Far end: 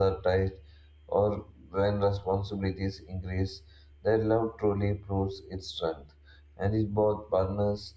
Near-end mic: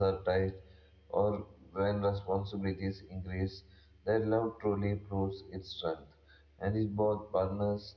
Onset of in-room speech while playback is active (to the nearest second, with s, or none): none